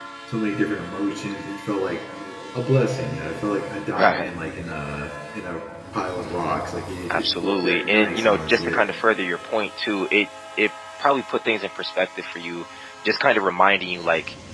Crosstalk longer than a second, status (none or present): present